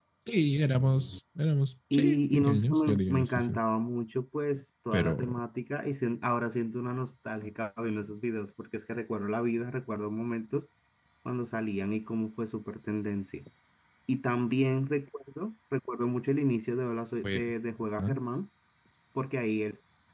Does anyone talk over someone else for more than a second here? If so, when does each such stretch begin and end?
1.9-3.5

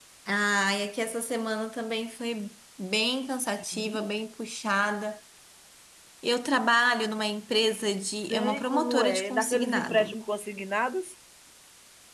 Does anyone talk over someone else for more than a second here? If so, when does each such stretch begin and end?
8.3-10.2

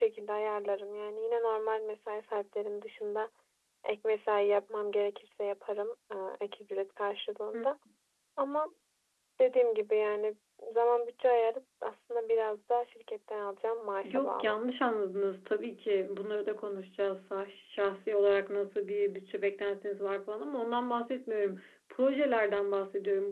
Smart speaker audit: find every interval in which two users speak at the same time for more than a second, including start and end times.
none

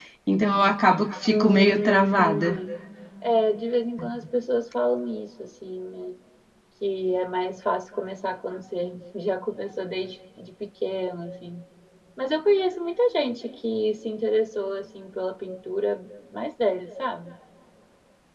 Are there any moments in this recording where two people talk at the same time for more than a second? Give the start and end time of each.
1.3-2.6

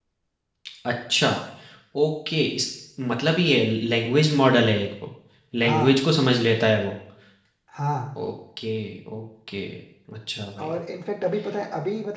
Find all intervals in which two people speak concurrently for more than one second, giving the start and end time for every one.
none

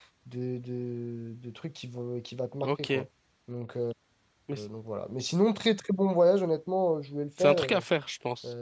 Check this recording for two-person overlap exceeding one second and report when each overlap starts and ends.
none

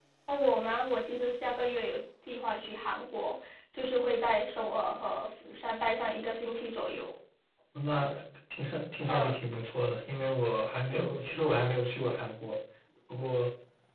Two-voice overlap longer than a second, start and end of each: none

